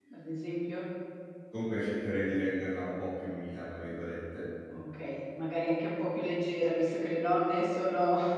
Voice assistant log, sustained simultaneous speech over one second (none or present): none